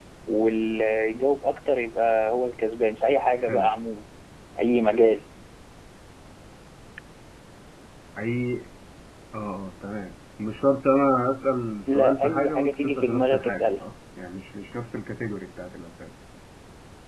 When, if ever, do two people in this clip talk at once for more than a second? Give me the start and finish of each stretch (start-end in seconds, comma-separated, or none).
11.8-13.8